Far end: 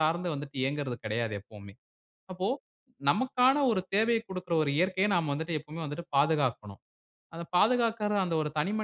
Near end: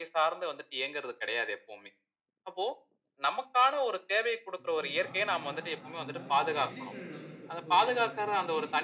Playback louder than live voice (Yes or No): Yes